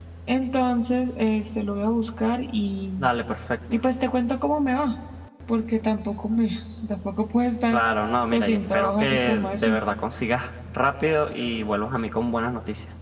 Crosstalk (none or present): present